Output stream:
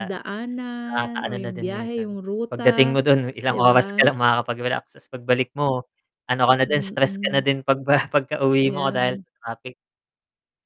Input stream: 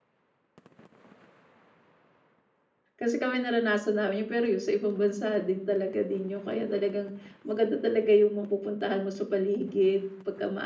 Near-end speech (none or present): present